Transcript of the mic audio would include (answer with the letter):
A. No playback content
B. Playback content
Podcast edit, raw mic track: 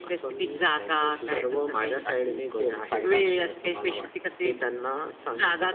B